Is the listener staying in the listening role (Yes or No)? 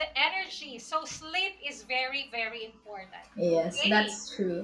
No